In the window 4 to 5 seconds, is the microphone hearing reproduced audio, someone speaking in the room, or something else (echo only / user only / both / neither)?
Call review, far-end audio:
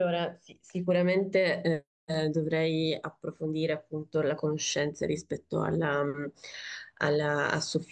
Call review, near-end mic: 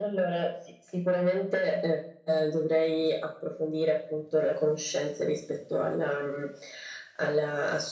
echo only